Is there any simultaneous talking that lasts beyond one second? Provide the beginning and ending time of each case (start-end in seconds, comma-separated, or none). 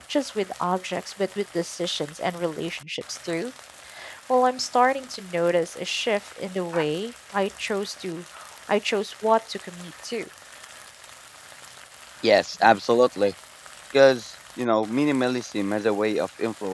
none